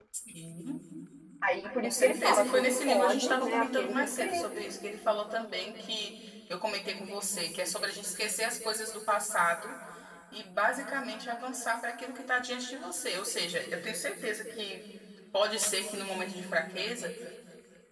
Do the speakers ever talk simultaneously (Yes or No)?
Yes